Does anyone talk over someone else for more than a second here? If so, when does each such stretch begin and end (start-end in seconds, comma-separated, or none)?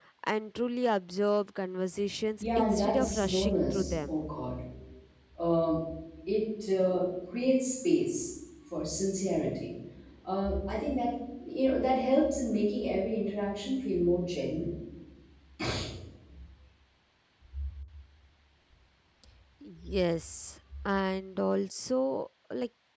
2.4-4.1